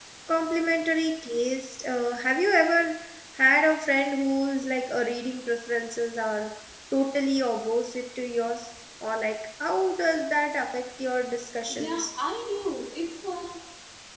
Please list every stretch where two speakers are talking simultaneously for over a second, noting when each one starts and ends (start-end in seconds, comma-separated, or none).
none